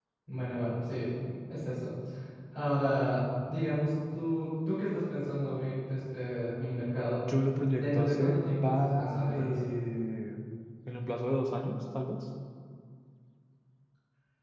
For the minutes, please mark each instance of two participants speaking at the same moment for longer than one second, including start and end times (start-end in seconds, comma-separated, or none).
7.8-9.5